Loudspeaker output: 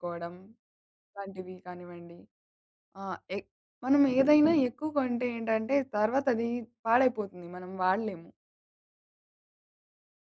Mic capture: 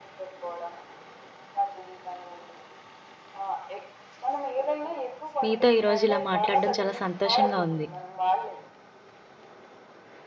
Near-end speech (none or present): present